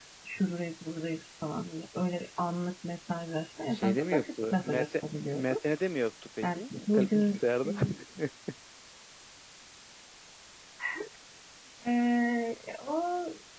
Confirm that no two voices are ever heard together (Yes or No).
No